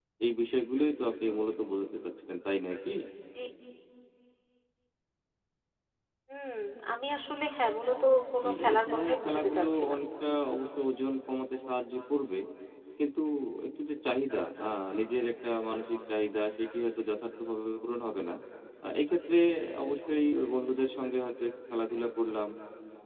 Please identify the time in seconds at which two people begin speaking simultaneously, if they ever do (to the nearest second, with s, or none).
8 s